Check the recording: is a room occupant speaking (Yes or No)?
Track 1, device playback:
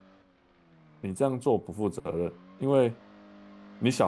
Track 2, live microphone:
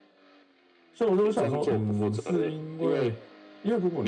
Yes